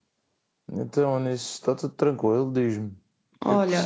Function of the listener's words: taking over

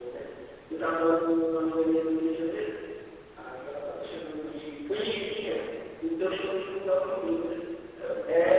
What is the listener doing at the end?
taking over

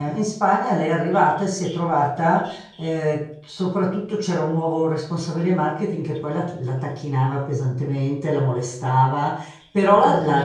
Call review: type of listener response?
listening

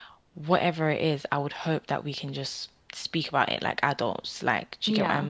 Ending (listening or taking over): listening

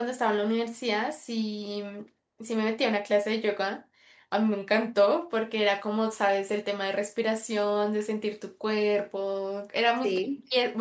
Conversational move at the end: listening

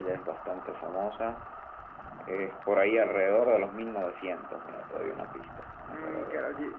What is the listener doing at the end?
taking over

